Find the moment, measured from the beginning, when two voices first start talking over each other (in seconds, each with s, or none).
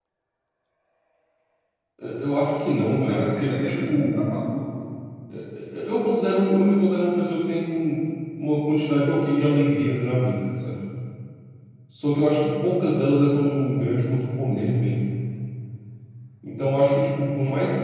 2.9 s